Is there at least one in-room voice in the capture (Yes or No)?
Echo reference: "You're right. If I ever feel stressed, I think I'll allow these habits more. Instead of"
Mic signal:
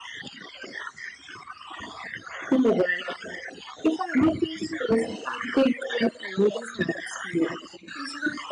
No